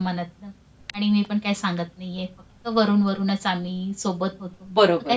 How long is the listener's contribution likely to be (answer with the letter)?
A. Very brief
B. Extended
B